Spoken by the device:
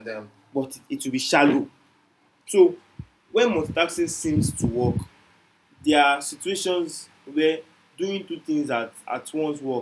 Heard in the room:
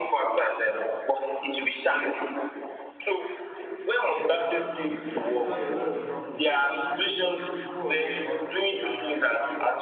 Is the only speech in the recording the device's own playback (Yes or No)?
No